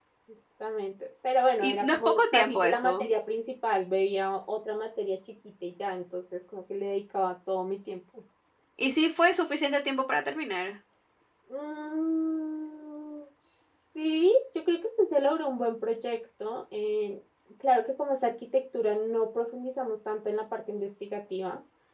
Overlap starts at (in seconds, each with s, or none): 1.6 s